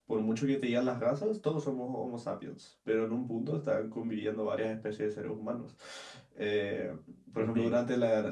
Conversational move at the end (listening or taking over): listening